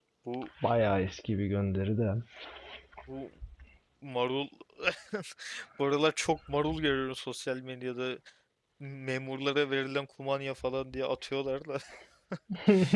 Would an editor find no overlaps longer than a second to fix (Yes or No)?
Yes